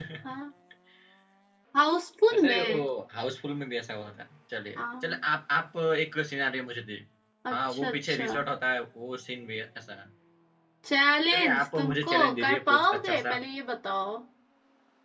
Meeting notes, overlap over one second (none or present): present